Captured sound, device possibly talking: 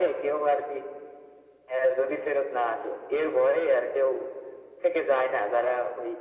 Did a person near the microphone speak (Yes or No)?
No